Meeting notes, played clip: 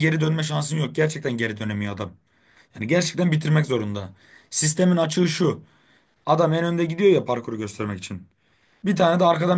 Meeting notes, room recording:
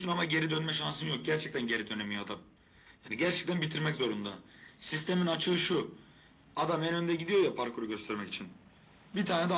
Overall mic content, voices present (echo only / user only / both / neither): echo only